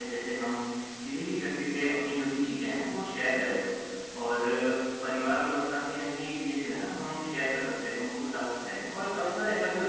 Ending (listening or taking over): listening